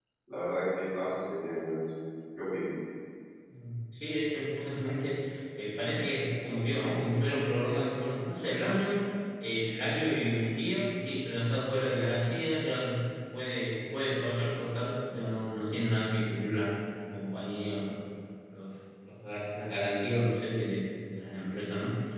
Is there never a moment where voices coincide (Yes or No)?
Yes